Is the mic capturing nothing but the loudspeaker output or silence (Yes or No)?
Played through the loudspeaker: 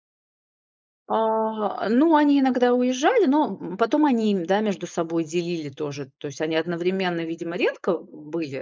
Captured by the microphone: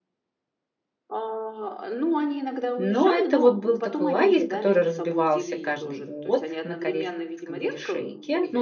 No